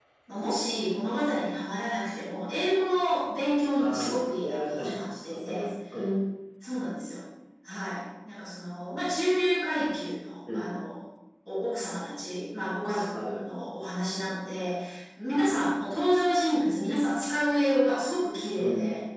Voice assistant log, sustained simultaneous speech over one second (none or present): present